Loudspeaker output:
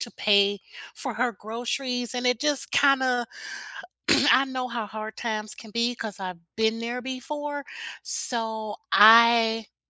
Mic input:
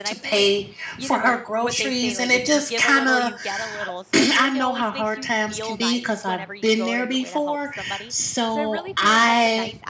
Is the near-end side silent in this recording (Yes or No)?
No